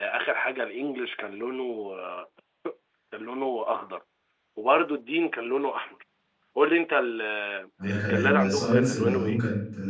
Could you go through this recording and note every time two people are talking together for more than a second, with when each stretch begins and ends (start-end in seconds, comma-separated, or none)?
7.8-9.4